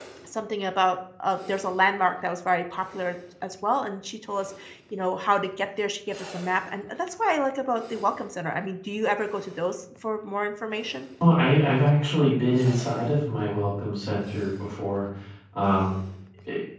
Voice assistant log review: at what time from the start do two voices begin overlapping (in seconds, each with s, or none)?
none